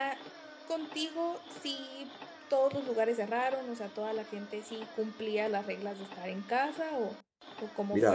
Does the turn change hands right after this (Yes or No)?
Yes